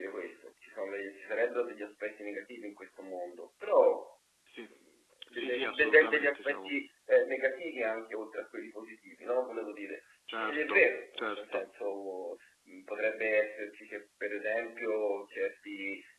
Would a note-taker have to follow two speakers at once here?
Yes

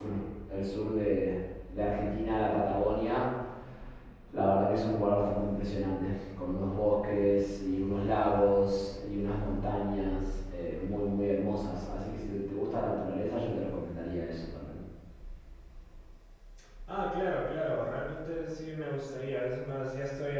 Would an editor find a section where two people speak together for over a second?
No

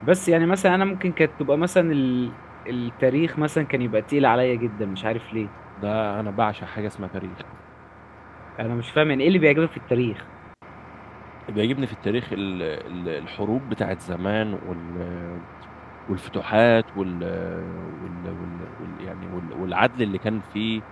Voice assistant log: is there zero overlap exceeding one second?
Yes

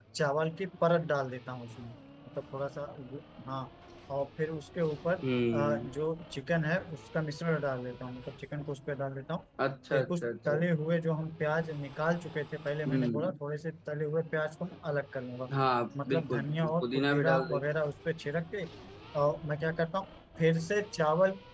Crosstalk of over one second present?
Yes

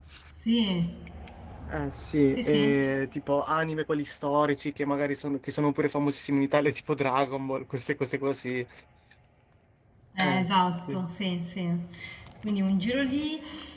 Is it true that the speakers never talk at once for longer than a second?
Yes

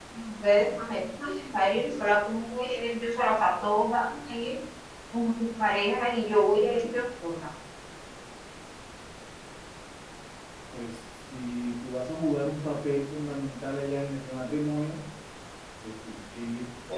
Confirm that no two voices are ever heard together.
Yes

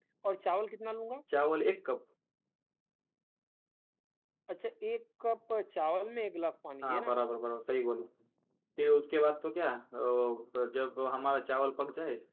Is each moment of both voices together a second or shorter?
Yes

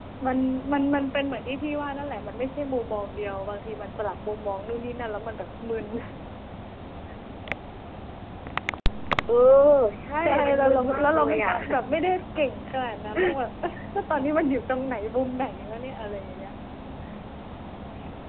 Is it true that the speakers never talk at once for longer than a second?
No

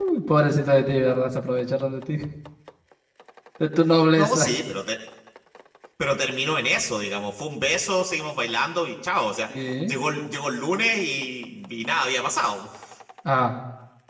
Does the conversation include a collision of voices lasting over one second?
No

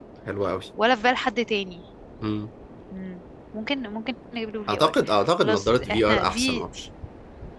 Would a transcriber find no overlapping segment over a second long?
No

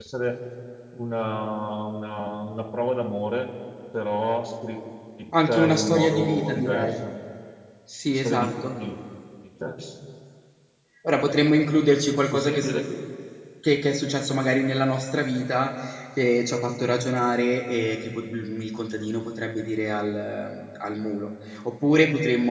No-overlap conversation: No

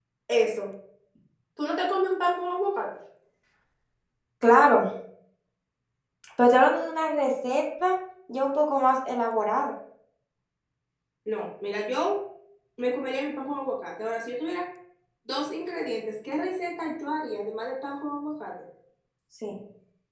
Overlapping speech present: No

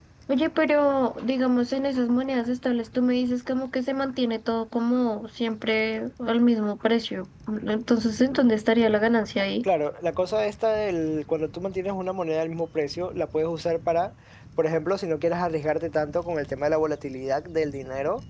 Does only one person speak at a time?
Yes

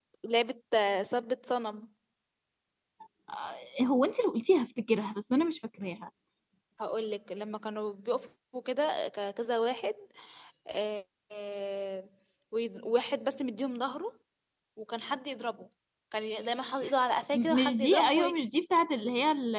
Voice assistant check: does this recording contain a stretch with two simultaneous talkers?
Yes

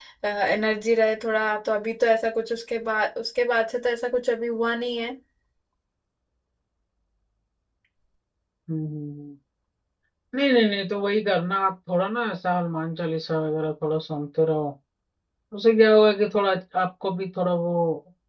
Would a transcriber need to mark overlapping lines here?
No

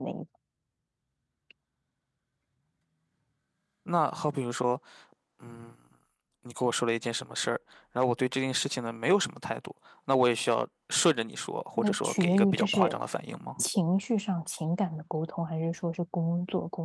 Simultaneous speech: Yes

